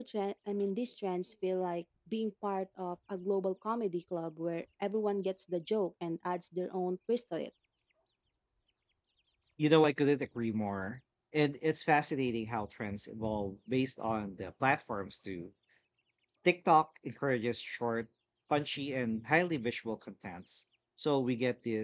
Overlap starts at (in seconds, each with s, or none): none